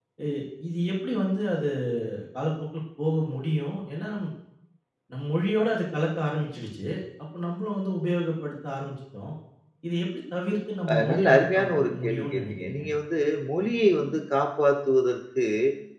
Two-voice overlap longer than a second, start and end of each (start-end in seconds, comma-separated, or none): 10.9-12.8